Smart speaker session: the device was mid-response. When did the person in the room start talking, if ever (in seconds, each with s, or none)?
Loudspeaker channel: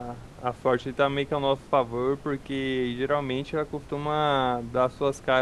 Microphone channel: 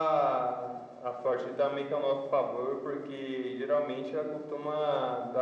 none